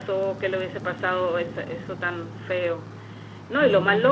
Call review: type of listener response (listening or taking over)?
listening